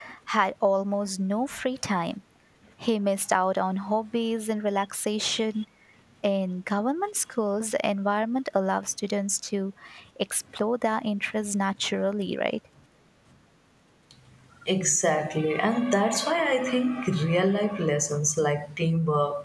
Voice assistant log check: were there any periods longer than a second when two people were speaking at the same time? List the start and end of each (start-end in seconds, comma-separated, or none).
none